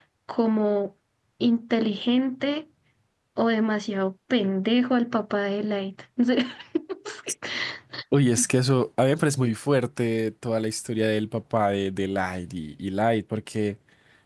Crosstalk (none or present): none